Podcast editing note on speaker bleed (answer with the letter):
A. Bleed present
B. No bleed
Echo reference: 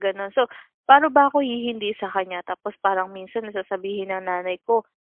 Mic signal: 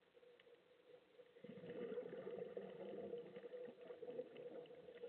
B